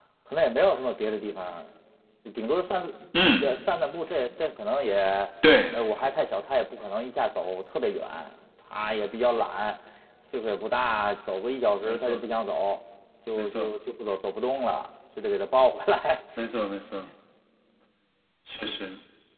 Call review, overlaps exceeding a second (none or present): none